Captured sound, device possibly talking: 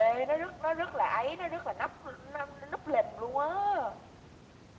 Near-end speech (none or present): none